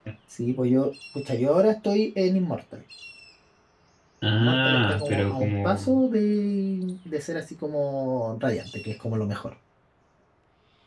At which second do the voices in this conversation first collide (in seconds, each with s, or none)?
4.4 s